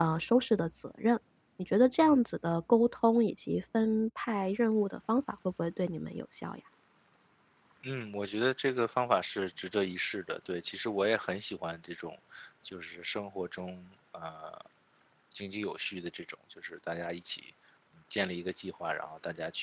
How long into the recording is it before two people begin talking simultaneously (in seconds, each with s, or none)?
none